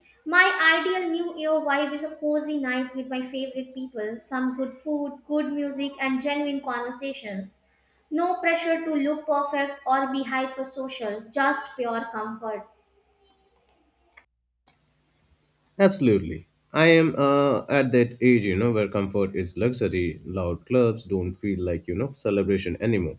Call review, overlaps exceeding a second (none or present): none